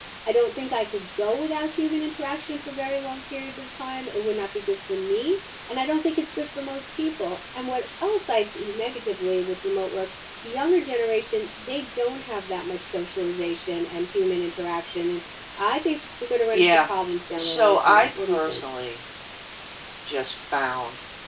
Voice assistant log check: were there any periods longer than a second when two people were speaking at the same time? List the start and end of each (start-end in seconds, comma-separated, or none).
17.4-18.6